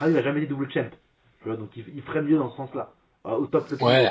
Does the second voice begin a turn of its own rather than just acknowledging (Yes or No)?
Yes